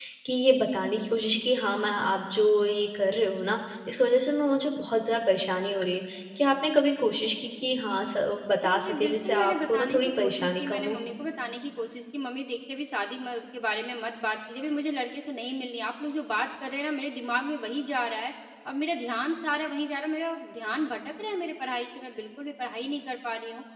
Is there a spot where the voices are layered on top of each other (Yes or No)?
Yes